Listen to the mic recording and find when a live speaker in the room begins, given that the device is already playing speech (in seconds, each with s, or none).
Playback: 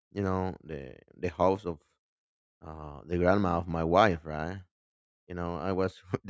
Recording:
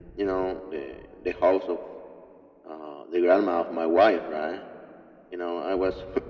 none